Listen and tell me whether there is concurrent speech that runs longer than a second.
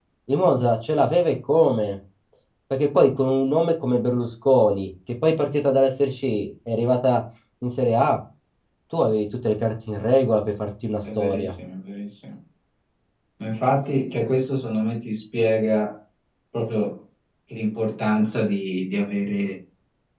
No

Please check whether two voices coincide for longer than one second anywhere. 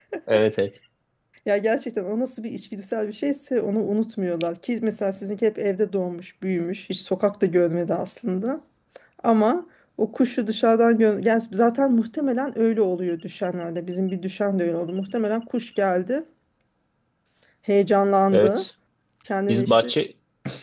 No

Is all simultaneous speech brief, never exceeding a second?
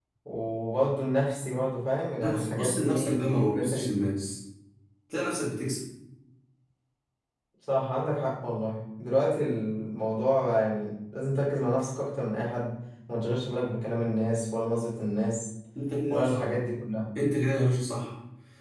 No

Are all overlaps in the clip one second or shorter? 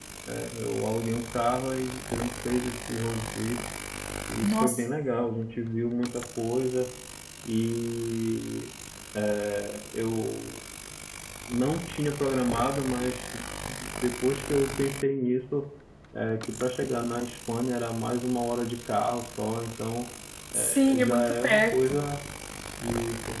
No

